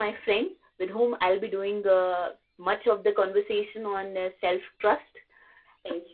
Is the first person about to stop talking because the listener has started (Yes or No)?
No